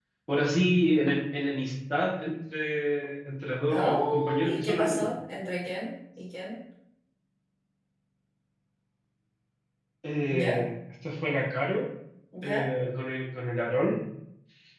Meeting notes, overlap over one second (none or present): present